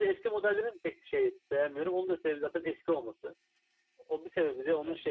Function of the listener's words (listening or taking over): listening